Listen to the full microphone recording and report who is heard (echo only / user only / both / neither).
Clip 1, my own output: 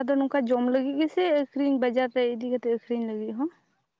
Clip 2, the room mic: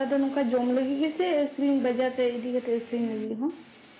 both